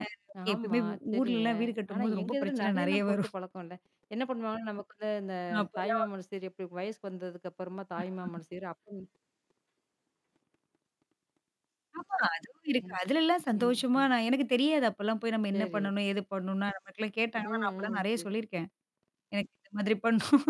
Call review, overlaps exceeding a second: present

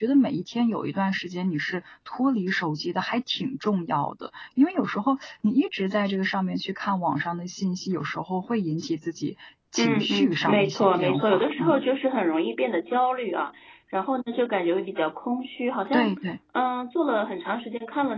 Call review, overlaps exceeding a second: present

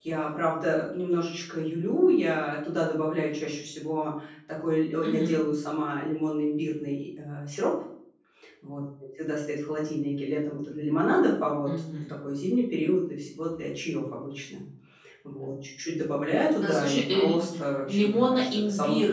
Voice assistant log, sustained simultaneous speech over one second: present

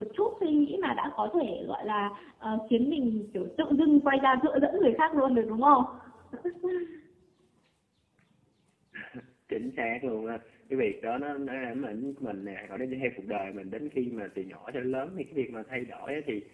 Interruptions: none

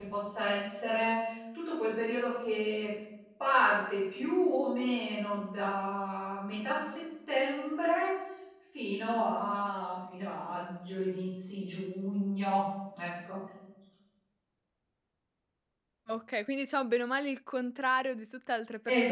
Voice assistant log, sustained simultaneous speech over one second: none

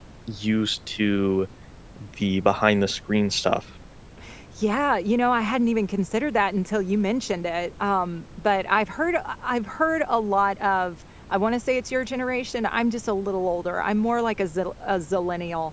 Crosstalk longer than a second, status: none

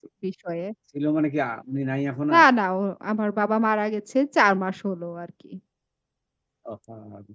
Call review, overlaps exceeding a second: none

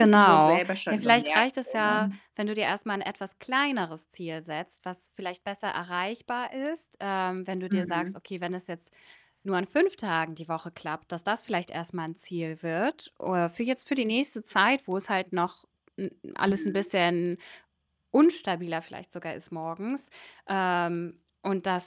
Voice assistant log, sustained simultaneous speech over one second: present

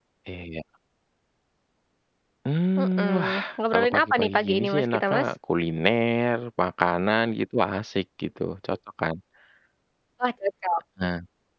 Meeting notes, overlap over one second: present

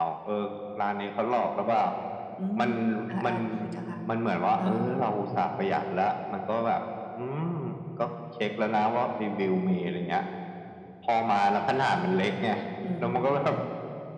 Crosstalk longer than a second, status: none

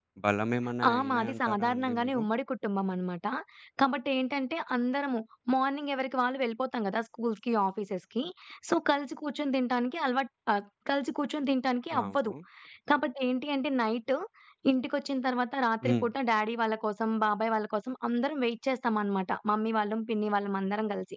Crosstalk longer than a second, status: present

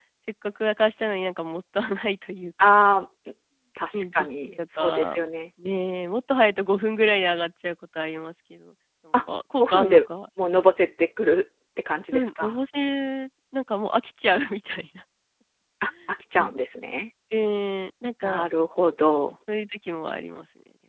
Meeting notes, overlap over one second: present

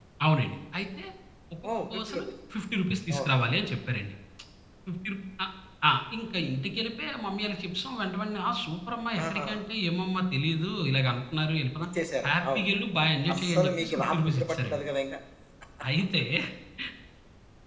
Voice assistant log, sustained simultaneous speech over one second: present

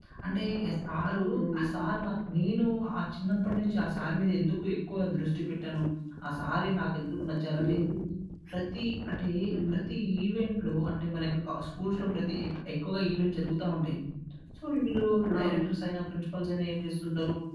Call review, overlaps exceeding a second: none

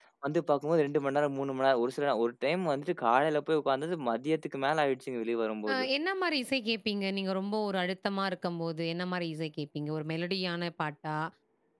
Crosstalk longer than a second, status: none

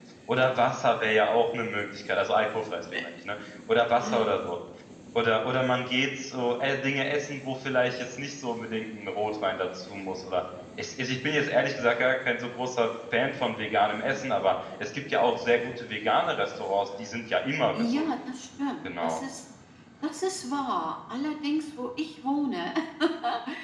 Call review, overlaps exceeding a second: none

